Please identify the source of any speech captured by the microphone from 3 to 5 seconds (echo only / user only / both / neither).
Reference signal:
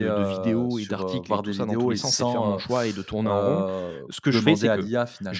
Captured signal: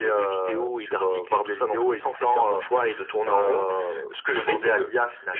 echo only